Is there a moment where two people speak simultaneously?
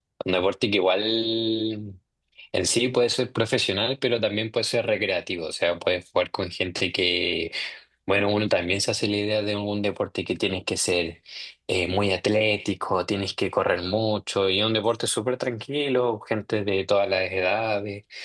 No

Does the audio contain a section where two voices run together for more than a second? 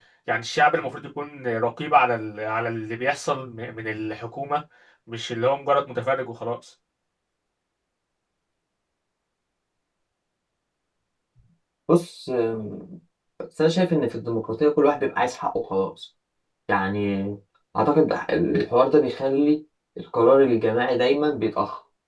No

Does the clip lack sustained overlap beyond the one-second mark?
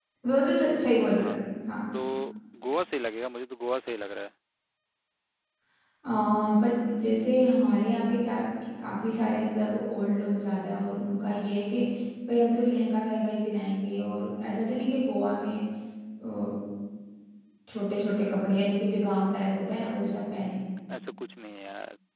Yes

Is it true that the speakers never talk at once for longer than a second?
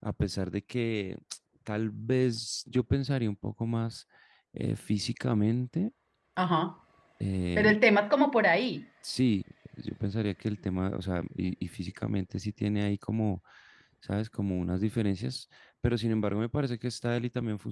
Yes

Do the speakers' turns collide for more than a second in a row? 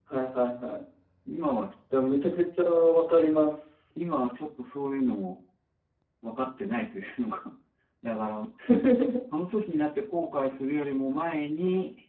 No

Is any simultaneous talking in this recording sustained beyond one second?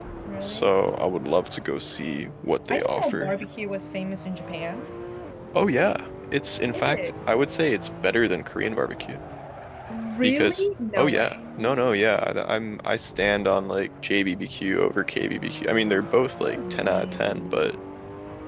Yes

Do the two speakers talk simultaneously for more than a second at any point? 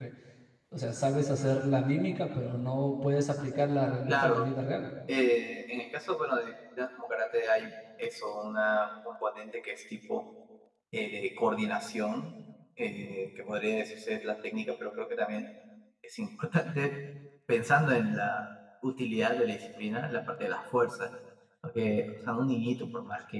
No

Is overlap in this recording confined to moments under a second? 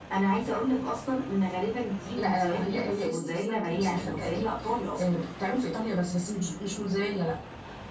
No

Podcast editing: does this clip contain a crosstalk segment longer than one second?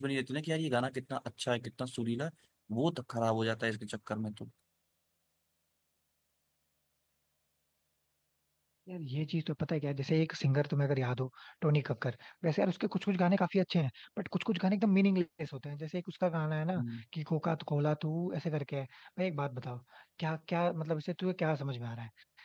No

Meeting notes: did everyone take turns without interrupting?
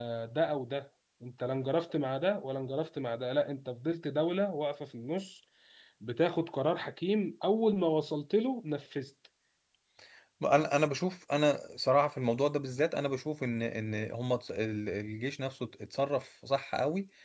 Yes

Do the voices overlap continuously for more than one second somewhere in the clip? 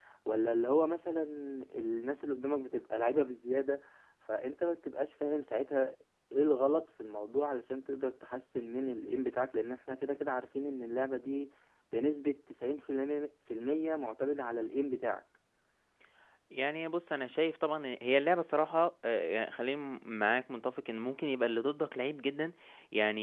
No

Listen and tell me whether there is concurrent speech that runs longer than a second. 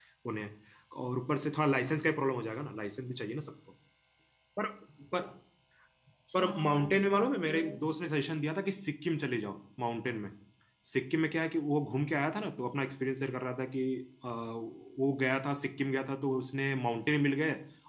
Yes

